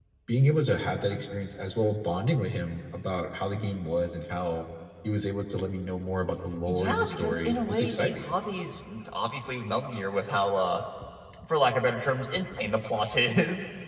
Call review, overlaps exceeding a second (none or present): present